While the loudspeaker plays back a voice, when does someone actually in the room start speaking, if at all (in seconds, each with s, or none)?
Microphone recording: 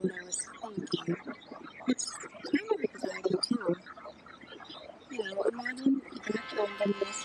none